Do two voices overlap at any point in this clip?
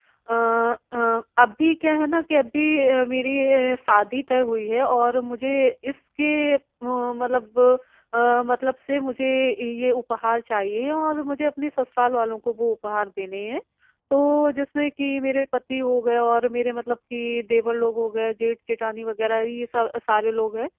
No

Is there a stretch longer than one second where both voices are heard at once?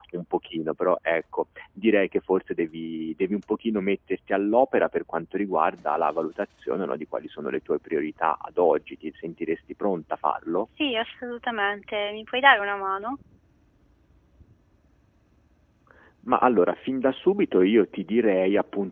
No

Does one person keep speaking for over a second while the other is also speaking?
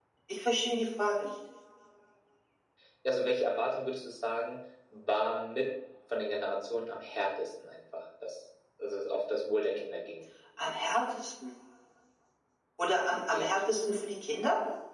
No

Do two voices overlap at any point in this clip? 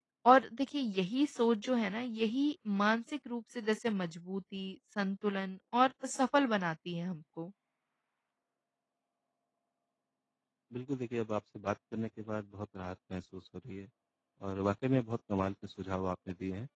No

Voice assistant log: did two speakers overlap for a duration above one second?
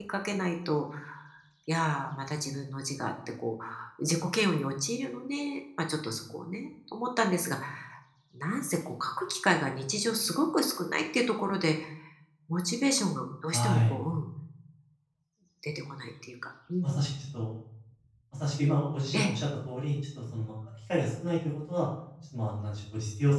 No

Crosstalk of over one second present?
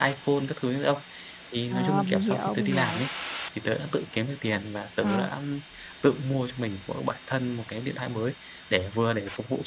Yes, from 1.7 s

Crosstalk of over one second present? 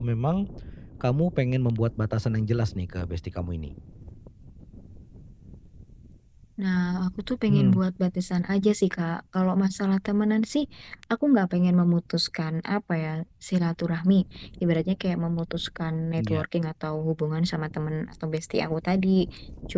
No

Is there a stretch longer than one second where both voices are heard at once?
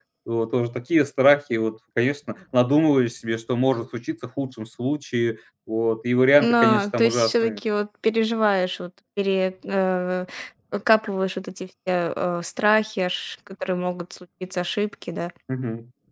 Yes, from 6.4 s

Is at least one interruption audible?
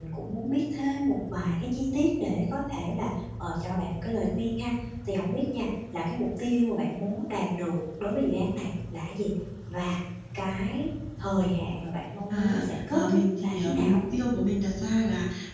Yes, from 12.3 s

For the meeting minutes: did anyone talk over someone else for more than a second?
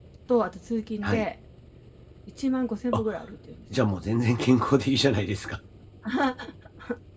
No

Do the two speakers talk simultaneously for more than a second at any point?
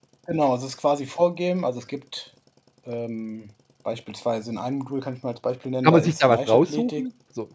Yes, from 5.8 s

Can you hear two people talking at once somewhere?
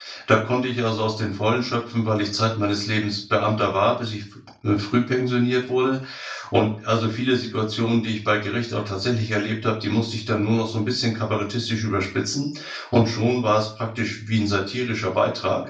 No

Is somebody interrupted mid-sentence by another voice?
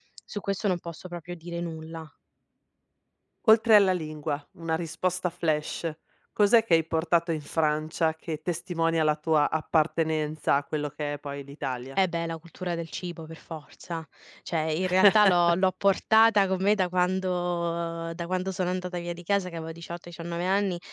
No

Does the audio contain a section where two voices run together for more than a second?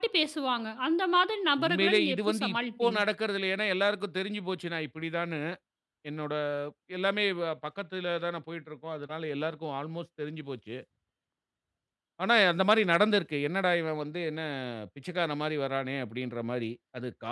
Yes, from 1.6 s

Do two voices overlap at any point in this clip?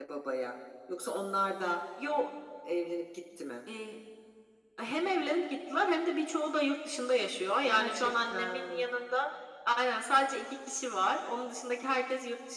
Yes, from 7.7 s

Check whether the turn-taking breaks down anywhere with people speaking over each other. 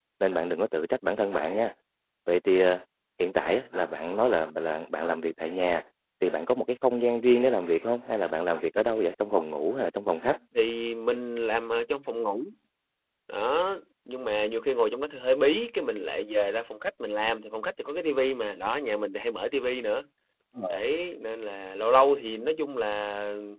No

